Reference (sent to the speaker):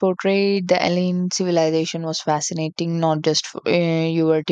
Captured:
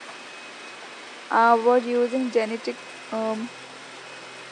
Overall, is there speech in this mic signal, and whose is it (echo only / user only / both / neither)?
user only